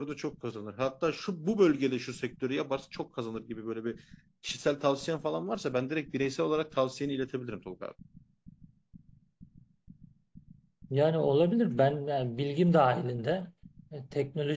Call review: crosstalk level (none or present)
none